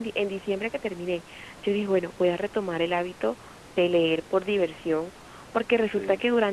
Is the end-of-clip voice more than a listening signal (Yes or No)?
No